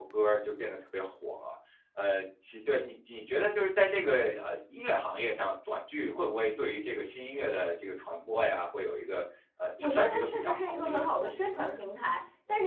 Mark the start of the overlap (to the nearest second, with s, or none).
10 s